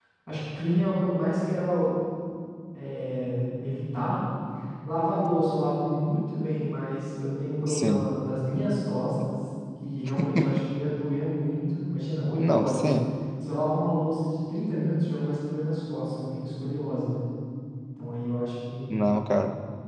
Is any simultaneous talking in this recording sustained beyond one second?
No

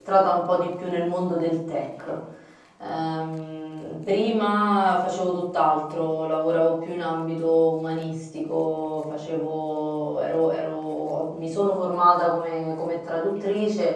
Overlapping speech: No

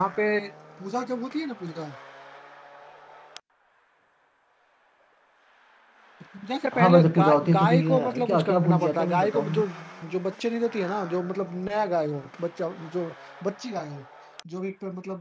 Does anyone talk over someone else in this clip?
Yes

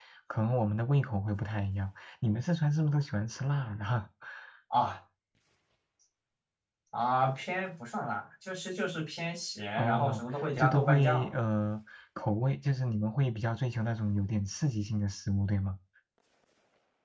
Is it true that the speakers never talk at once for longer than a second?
No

